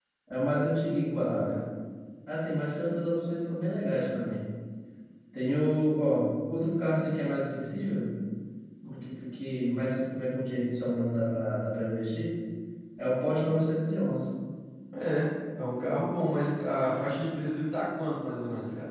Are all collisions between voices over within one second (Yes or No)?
Yes